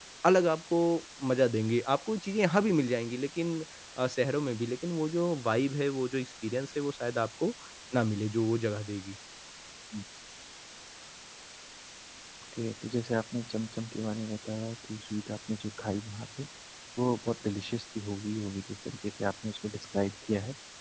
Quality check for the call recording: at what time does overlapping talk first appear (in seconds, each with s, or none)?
none